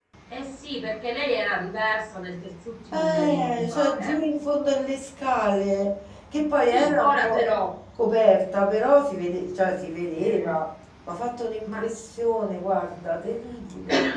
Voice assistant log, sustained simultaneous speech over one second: present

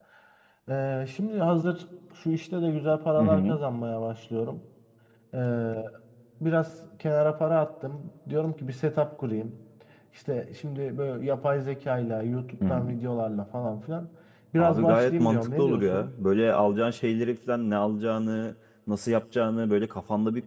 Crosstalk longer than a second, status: present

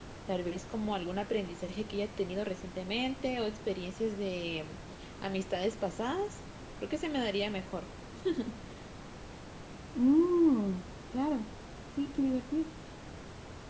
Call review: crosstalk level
none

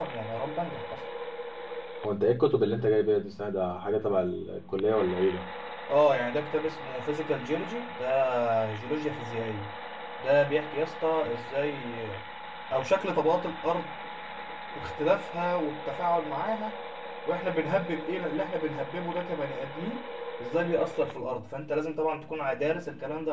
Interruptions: none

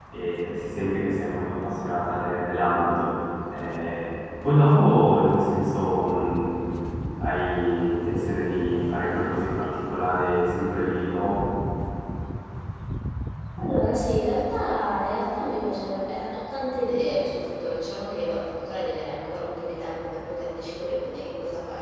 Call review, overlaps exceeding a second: none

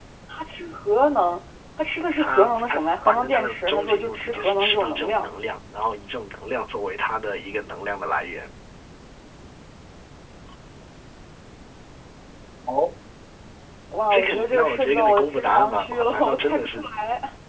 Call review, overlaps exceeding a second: present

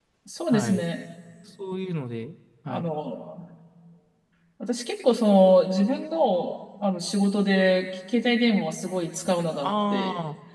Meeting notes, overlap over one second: none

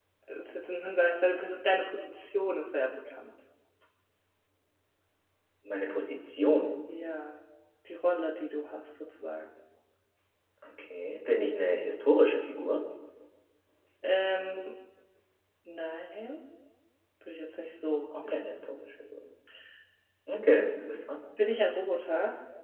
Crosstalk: none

